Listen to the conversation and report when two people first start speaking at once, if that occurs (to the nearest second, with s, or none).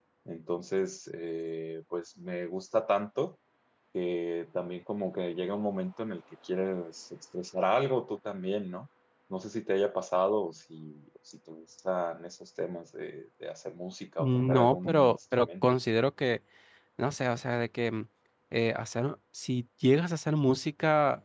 14 s